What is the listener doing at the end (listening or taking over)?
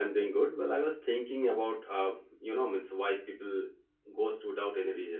taking over